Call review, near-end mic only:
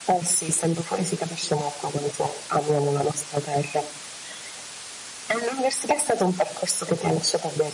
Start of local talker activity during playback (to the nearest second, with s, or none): none